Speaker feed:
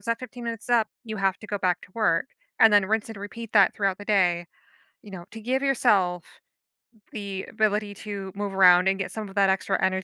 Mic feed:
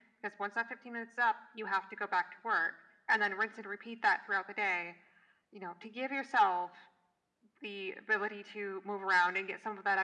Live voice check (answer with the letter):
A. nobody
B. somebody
A